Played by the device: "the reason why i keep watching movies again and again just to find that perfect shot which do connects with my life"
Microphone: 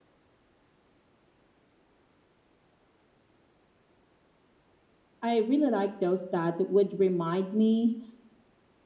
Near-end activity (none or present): present